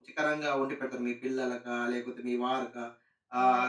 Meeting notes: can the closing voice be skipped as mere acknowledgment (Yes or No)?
Yes